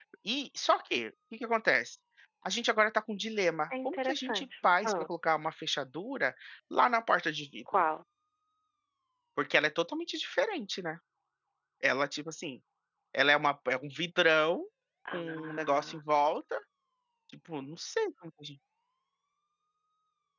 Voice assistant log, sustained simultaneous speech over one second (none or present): present